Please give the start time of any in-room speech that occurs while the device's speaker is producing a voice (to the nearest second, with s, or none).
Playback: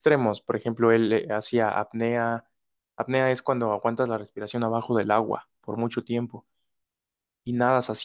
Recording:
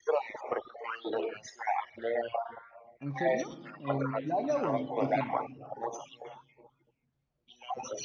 3 s